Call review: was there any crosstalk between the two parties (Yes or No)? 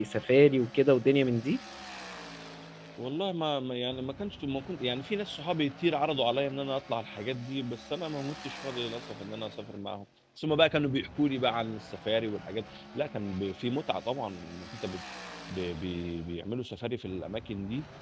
No